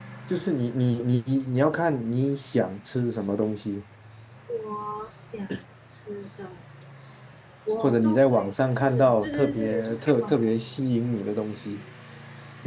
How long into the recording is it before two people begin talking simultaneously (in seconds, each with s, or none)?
7.8 s